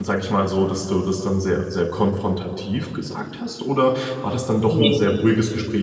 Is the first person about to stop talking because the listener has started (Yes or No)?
No